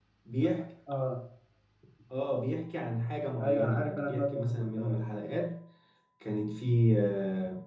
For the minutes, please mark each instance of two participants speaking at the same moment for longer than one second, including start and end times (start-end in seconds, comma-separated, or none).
3.4-5.0